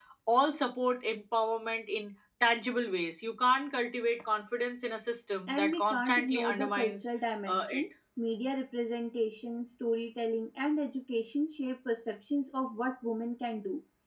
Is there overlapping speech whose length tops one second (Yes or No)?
Yes